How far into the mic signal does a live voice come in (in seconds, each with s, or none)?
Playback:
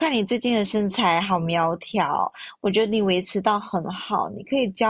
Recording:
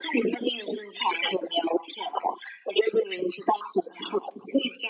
none